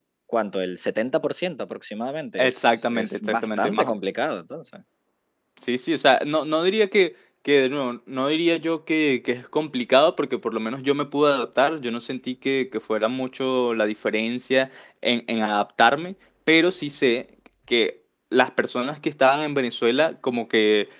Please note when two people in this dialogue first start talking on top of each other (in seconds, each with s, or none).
2.4 s